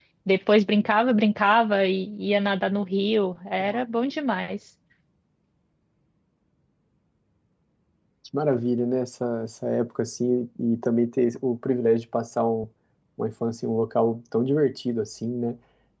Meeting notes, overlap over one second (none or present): none